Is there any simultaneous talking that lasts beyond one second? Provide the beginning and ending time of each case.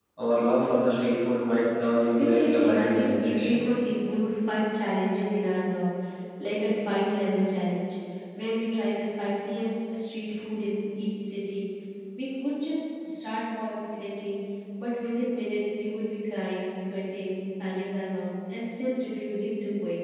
2.2-3.6

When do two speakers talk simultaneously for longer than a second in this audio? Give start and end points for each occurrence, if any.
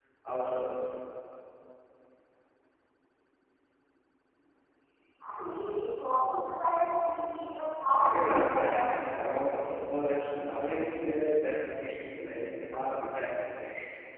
8.0-9.3

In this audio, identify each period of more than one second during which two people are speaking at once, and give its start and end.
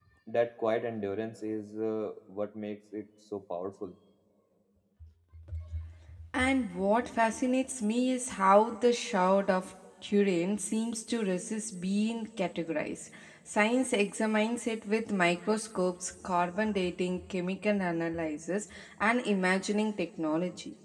none

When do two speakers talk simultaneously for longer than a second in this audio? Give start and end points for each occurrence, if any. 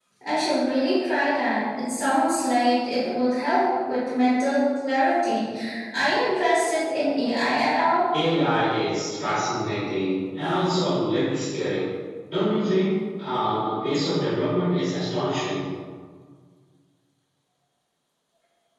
none

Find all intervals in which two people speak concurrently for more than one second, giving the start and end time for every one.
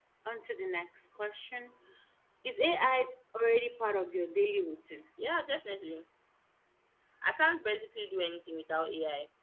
none

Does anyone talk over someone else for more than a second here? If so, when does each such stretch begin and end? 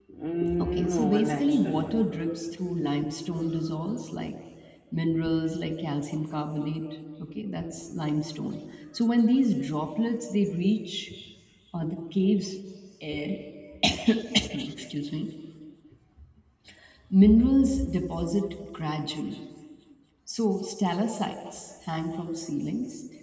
0.6-2.0

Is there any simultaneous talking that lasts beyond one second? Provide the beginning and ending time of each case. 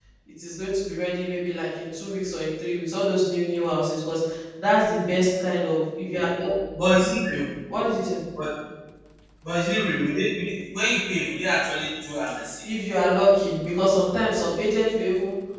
none

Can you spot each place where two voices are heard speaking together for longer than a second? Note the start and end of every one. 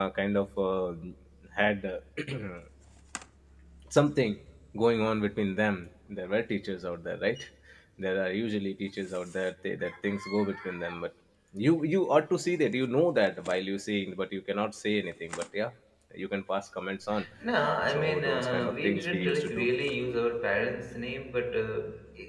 17.9-19.7

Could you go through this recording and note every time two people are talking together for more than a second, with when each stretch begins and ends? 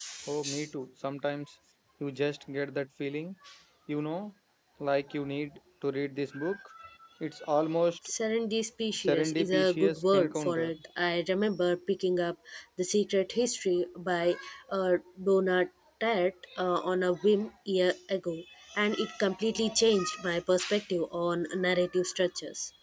8.9-10.7

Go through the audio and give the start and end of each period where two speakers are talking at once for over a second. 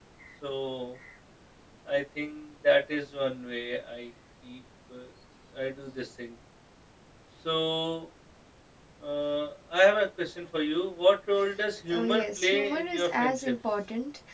11.9-13.5

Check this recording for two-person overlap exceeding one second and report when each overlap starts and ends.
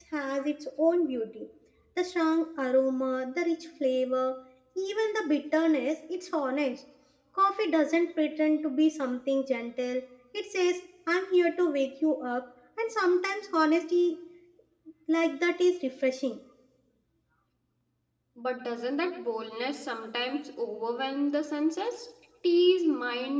none

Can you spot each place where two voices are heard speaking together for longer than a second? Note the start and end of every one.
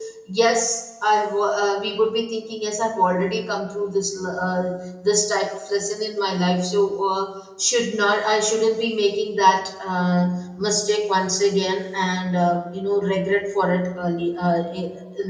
none

